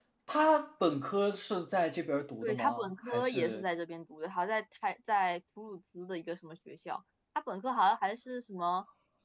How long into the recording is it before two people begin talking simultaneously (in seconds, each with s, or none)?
2.4 s